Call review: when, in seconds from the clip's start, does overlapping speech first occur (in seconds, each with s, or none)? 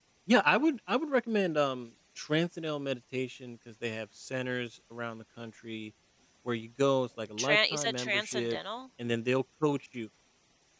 7.4 s